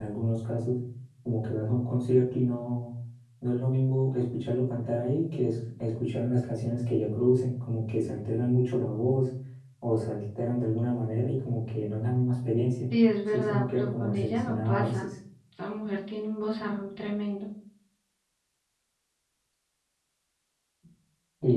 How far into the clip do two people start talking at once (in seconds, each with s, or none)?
13.3 s